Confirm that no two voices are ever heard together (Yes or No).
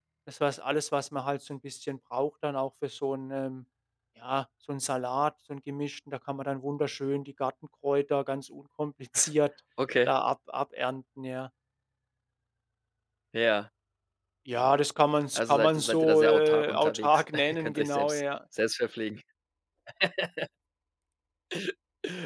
No